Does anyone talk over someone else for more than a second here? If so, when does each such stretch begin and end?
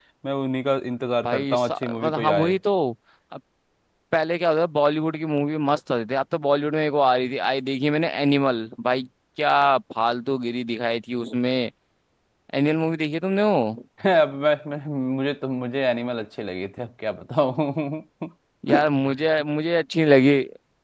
1.2-2.5

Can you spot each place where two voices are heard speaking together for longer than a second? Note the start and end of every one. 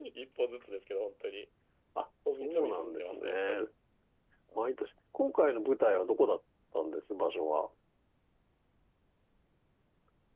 2.3-3.6

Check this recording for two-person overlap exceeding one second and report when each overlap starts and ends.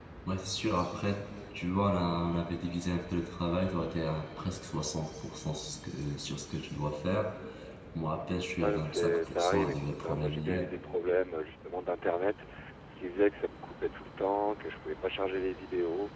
8.6-10.7

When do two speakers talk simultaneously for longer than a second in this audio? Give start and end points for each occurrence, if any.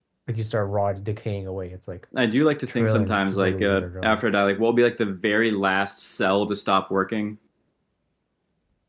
2.7-4.2

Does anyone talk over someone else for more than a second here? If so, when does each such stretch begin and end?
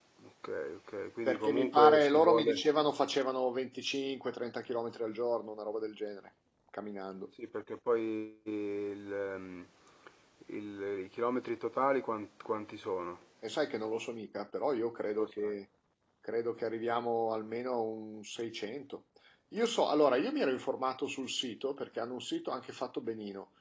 1.3-2.6

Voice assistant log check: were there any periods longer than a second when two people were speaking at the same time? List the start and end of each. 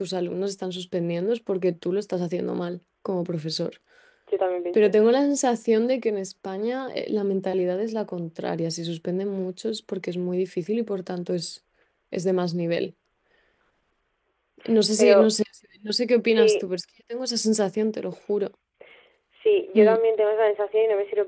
none

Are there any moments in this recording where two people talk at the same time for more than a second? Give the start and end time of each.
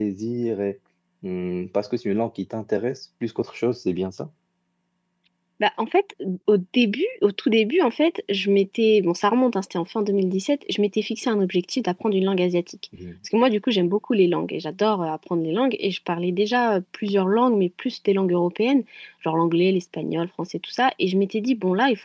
none

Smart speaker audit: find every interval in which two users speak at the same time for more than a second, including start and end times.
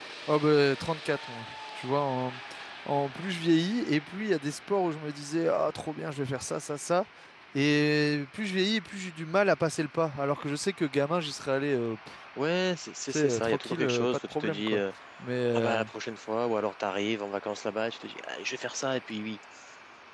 13.1-14.8

